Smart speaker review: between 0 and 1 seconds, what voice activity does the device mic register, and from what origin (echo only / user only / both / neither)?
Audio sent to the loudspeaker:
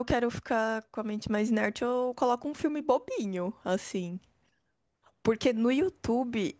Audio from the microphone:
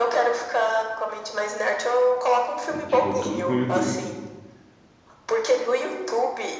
echo only